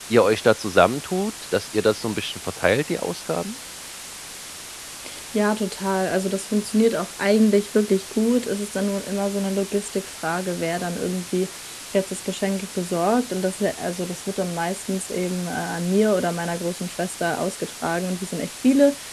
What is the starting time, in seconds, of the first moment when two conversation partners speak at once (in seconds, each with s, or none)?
none